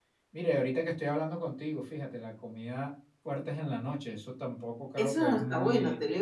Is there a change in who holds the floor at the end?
Yes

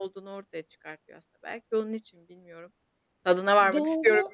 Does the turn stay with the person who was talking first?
No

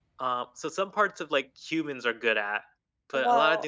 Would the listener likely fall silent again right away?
Yes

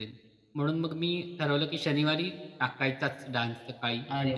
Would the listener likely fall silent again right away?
No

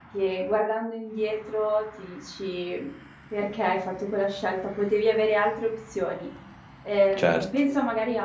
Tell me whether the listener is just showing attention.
Yes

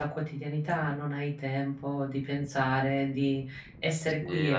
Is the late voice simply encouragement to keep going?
No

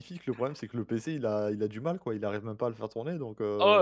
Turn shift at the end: Yes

